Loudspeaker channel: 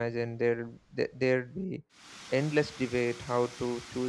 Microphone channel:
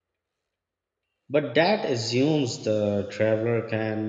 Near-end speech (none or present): present